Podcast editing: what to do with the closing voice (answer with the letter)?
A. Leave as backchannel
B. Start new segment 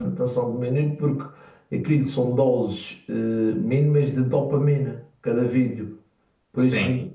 A